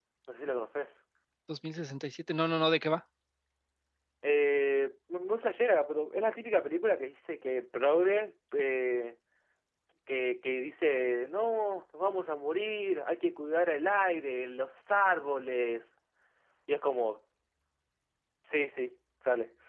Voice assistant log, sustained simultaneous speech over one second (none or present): none